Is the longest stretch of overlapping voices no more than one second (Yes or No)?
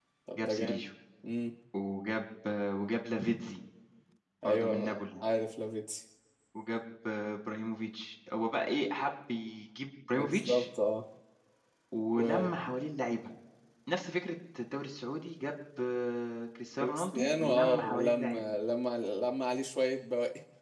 No